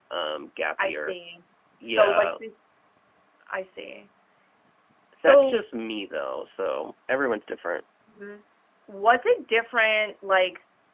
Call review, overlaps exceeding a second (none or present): none